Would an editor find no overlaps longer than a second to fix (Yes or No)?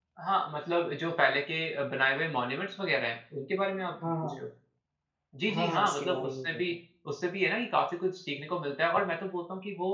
No